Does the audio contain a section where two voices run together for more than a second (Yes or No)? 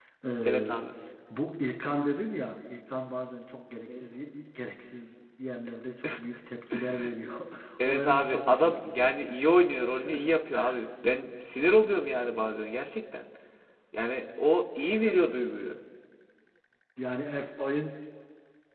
Yes